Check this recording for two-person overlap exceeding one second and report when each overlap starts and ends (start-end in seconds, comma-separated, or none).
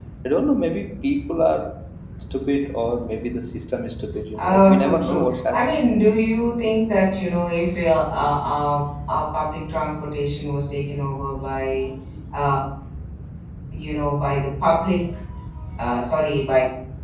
4.4-5.7